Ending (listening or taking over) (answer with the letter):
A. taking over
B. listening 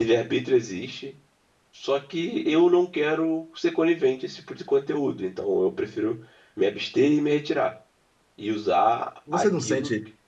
A